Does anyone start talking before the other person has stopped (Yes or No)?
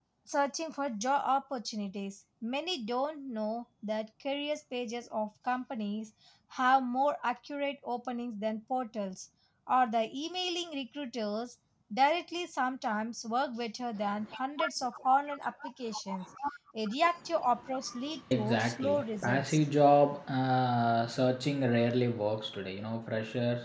Yes